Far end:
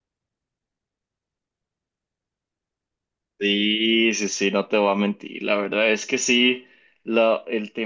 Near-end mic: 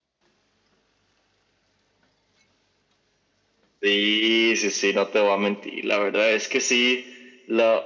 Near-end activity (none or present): none